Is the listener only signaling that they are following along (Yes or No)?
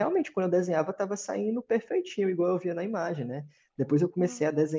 Yes